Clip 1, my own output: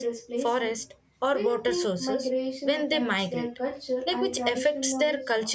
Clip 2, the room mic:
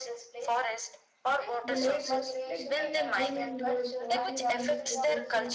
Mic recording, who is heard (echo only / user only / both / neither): both